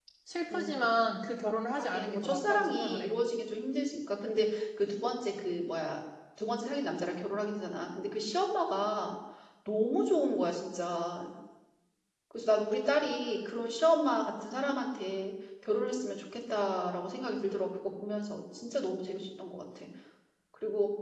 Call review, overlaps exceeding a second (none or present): present